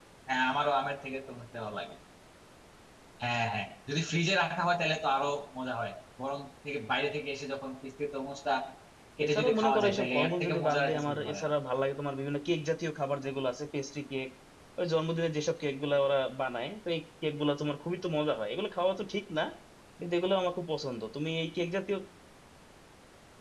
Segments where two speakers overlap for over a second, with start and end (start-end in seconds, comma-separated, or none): 9.2-11.5